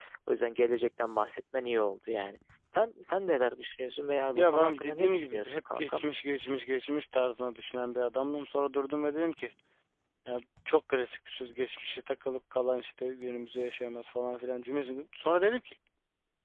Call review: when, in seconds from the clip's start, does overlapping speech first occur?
4.3 s

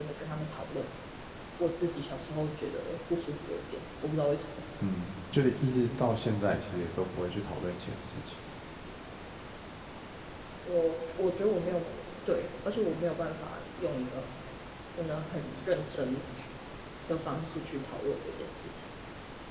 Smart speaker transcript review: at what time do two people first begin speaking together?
none

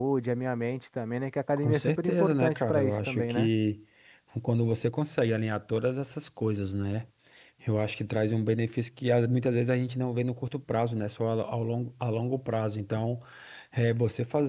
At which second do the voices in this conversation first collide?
1.6 s

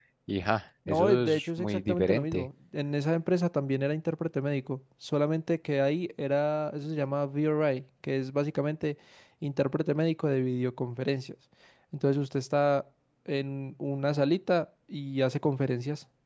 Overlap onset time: 0.9 s

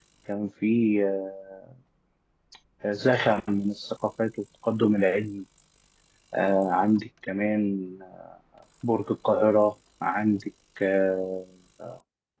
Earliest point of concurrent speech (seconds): none

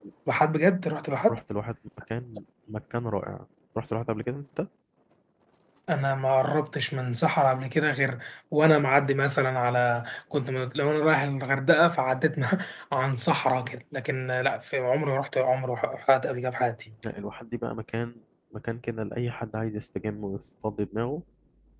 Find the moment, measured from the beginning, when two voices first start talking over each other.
none

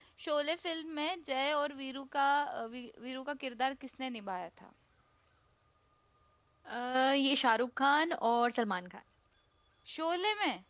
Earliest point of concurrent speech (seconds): none

